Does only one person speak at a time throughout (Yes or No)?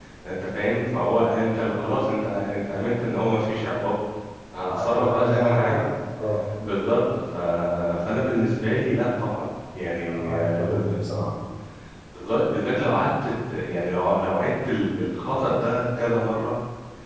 No